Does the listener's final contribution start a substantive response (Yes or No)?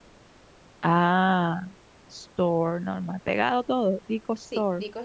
Yes